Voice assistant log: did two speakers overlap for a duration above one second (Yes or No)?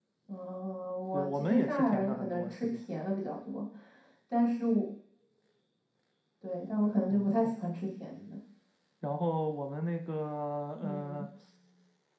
Yes